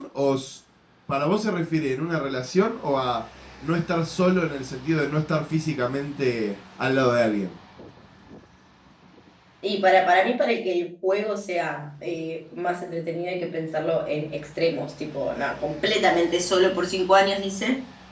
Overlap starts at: none

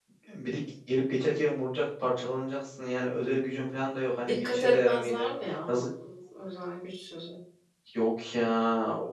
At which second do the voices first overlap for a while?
4.3 s

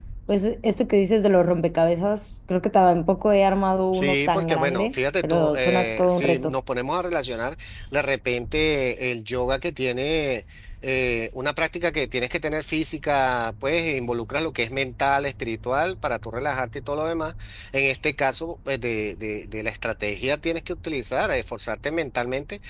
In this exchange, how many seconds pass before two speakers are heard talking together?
3.9 s

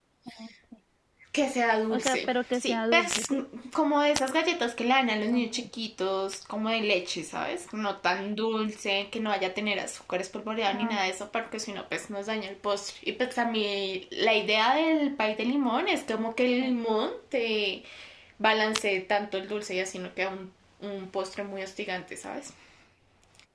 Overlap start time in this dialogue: 1.9 s

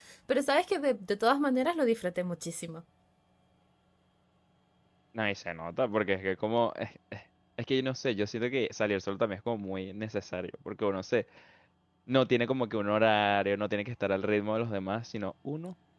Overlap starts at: none

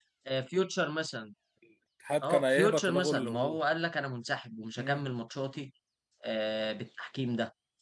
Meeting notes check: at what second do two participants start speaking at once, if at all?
2.2 s

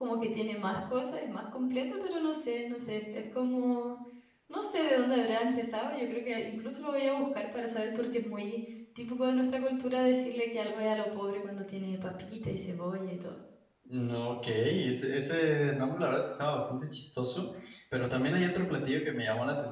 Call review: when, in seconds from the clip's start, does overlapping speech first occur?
none

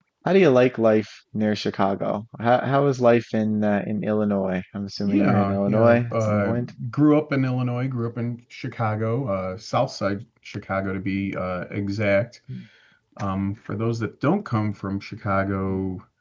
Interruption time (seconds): 5.0 s

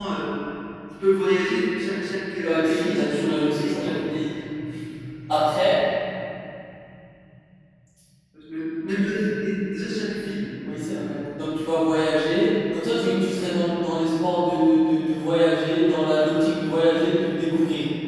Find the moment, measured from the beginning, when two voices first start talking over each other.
2.4 s

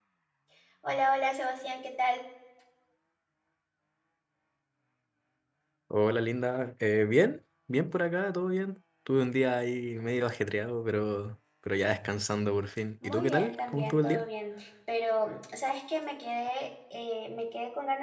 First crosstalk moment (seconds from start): 13.0 s

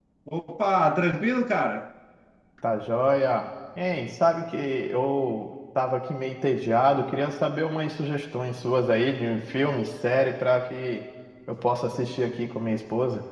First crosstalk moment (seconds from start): none

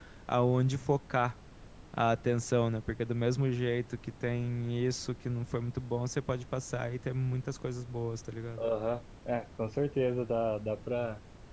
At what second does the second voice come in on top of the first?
none

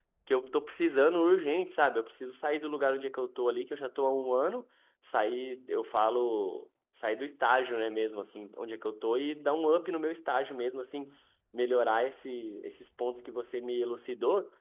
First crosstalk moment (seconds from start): none

